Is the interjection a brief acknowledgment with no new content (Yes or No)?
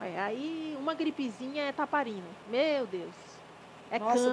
No